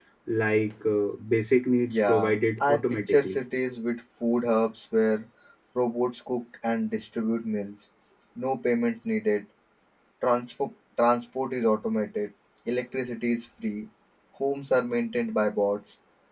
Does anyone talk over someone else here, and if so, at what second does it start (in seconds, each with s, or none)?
1.9 s